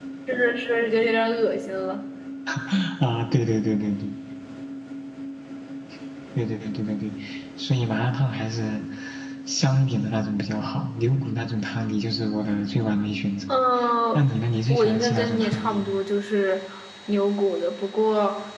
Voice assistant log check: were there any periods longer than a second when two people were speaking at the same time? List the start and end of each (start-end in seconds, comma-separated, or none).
14.7-15.9